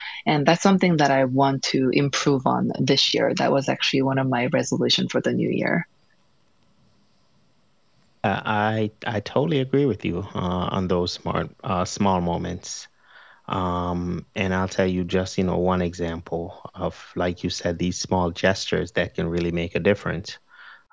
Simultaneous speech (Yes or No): No